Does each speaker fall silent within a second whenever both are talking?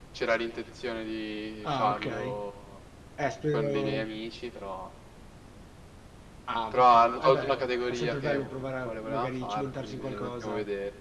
No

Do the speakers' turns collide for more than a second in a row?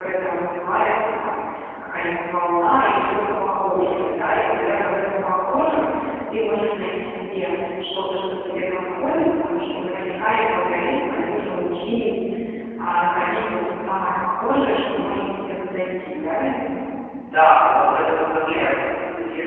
No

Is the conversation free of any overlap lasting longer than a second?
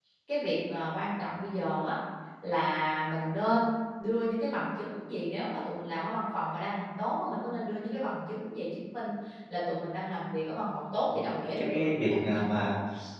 No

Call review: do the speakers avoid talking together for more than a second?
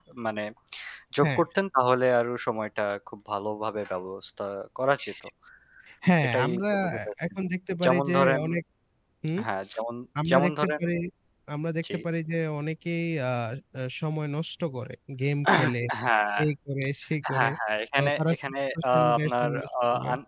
No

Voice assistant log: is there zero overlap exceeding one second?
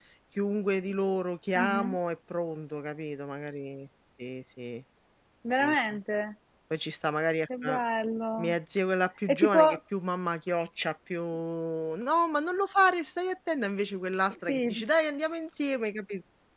Yes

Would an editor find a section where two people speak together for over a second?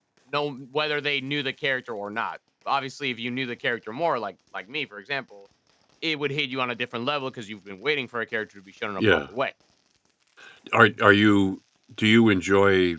No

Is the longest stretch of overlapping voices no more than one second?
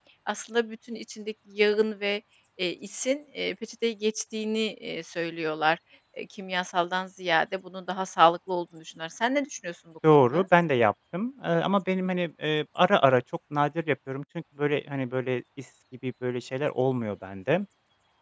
Yes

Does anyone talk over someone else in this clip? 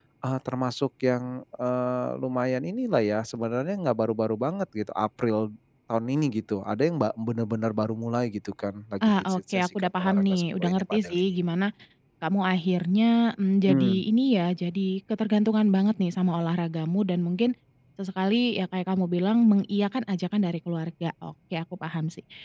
Yes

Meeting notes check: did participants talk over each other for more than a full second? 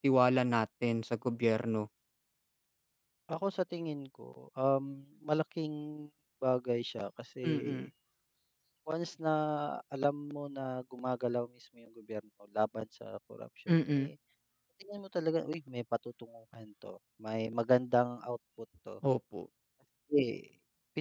No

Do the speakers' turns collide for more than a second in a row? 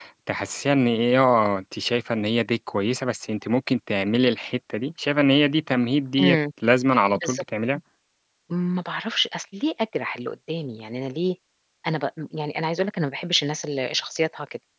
No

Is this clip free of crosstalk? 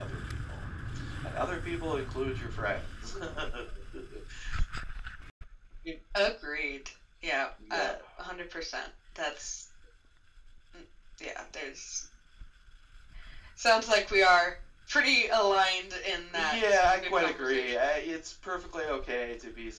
No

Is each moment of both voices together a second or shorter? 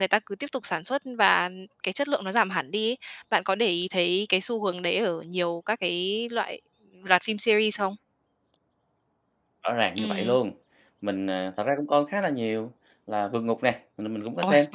Yes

